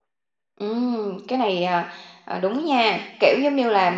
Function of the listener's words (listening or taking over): listening